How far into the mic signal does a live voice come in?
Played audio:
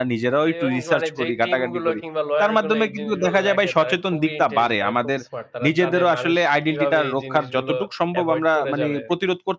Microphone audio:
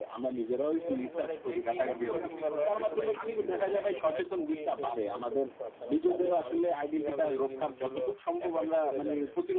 1.9 s

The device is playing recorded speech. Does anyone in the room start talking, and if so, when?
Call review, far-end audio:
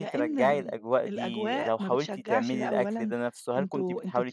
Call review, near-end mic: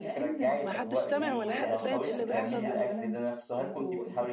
0.6 s

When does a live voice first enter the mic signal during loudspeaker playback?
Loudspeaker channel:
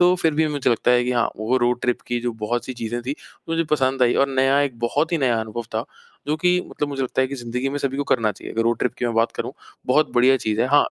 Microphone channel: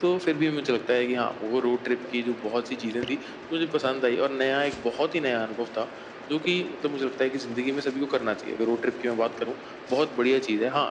none

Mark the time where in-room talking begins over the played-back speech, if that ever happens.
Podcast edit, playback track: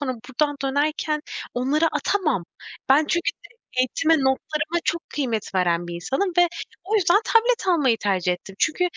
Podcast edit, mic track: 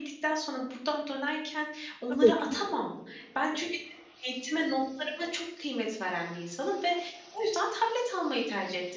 2.1 s

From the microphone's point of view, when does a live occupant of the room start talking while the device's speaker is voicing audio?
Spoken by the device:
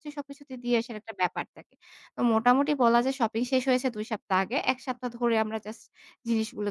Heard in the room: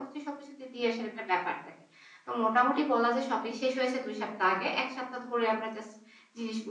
none

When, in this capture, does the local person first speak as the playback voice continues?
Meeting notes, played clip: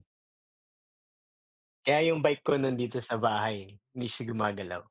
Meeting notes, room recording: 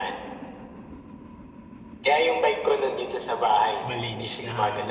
3.8 s

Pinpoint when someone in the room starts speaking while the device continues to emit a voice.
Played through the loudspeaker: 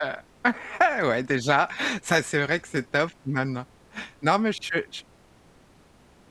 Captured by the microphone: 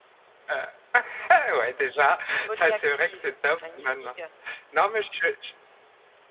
2.1 s

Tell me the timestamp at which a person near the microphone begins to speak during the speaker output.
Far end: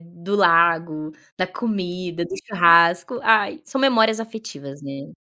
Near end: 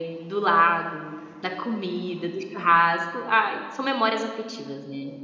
none

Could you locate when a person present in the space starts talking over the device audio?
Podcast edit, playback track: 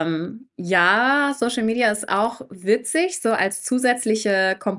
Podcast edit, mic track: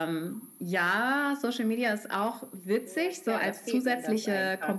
2.8 s

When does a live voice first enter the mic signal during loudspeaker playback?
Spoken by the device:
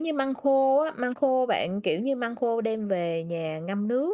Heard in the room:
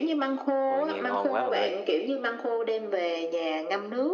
0.6 s

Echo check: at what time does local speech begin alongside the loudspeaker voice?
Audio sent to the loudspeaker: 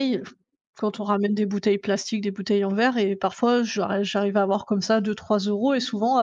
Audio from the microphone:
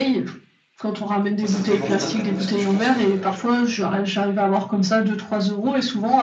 1.4 s

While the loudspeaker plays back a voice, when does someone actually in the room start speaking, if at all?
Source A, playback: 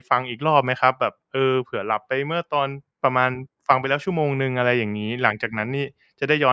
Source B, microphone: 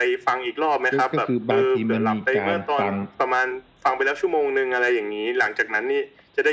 0.9 s

